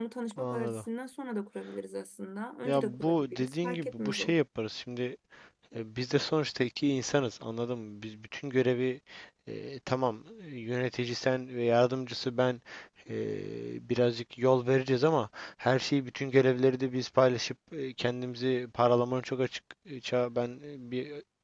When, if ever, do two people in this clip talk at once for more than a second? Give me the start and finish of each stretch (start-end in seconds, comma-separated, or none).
2.6-4.3